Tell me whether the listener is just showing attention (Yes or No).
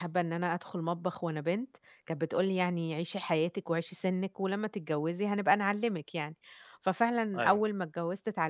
Yes